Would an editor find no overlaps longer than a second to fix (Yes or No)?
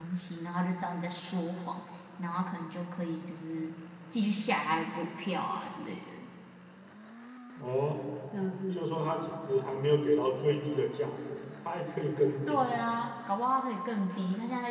Yes